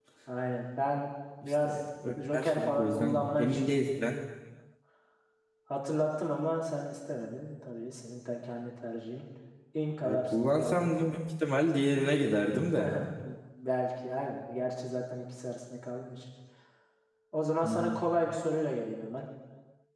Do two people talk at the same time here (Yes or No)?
Yes